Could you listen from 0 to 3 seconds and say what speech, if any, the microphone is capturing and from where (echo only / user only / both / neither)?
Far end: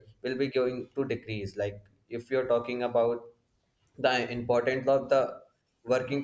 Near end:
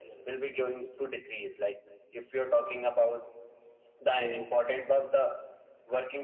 echo only